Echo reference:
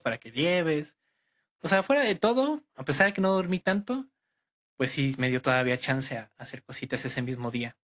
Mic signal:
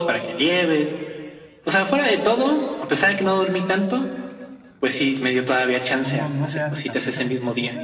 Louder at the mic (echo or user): echo